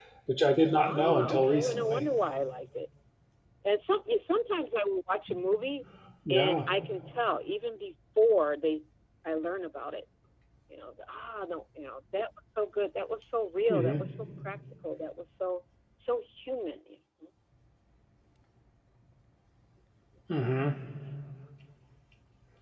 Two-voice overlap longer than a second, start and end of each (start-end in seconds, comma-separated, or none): 0.8-2.0